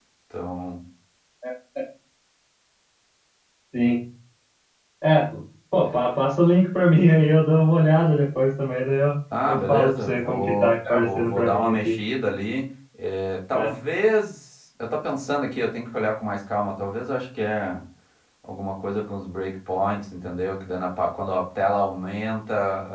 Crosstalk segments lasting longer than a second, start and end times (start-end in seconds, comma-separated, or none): 9.5-12.0